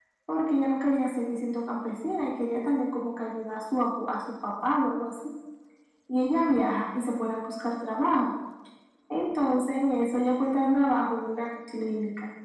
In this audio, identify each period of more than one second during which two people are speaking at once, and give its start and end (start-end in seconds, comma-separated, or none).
none